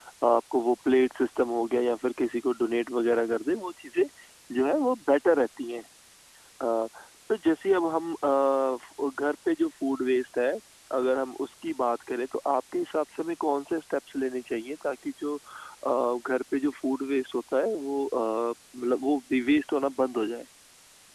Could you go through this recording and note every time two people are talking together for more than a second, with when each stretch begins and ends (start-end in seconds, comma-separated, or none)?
none